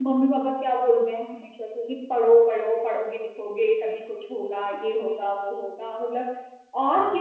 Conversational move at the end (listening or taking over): listening